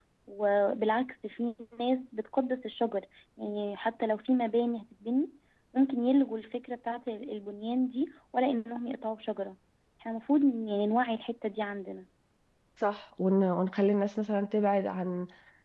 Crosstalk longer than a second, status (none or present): none